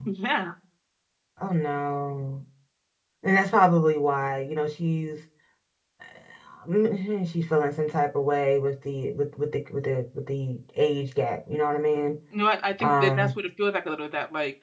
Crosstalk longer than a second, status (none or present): none